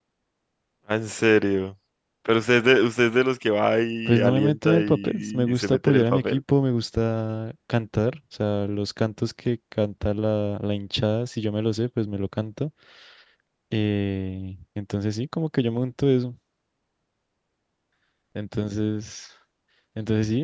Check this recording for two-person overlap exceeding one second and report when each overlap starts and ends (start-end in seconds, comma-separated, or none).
4.0-6.4